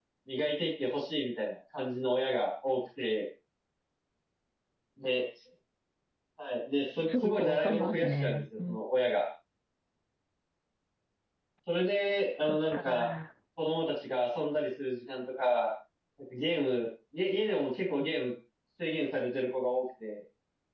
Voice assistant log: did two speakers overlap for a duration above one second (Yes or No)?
Yes